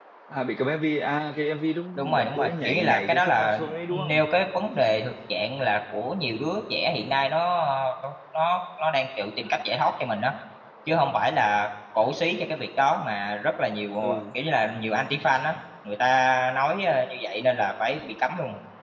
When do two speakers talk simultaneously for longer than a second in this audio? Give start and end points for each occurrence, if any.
2.0-4.2

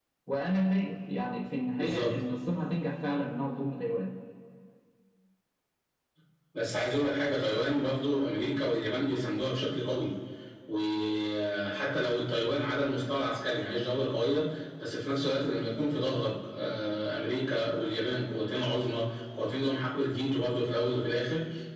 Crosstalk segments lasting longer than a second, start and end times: none

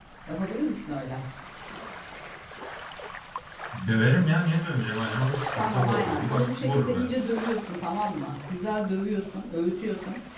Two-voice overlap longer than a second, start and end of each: 5.5-7.1

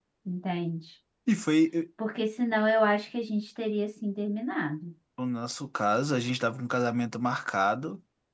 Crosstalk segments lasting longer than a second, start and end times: none

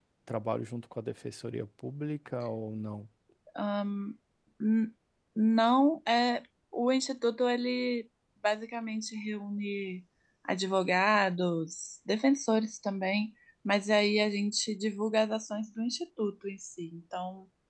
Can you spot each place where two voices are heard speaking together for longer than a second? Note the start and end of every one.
none

